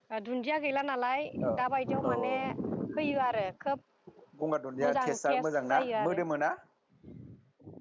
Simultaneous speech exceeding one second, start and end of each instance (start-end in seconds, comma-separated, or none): 4.8-6.2